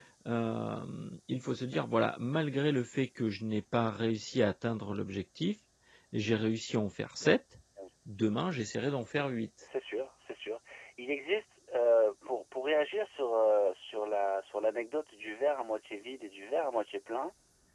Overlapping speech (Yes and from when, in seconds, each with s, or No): No